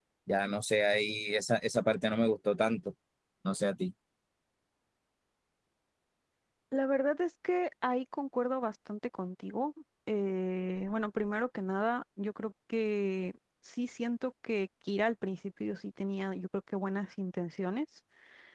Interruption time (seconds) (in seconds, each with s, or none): none